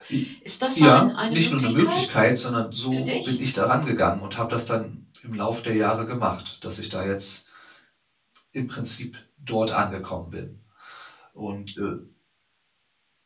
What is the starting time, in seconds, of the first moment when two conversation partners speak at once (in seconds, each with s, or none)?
0.8 s